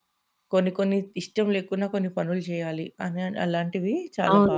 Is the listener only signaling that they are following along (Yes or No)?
No